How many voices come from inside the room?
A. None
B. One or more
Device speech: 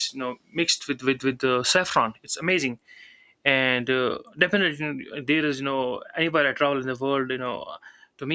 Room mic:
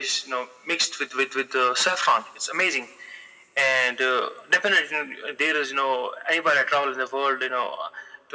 A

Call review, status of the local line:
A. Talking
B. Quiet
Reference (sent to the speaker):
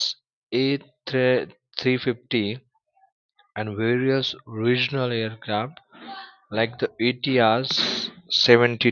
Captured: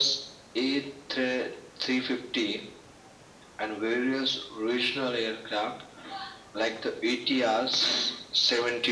B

